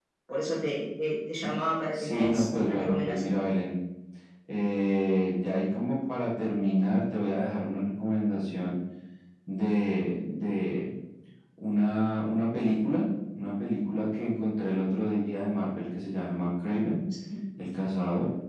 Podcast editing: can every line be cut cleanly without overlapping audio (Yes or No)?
No